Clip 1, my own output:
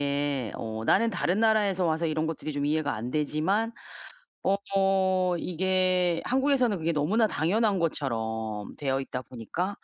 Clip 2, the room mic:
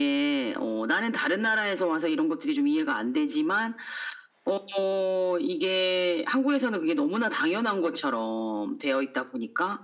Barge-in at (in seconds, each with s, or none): none